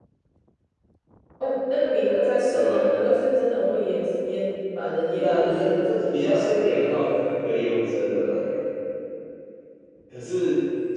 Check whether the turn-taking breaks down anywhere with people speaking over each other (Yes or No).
Yes